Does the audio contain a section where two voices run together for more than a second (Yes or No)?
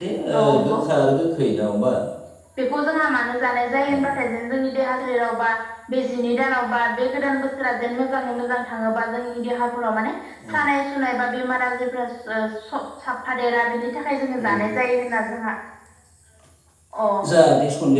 No